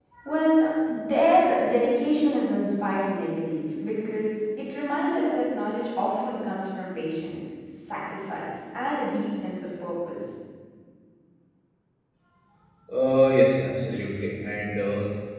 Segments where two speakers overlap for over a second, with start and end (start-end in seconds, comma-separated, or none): none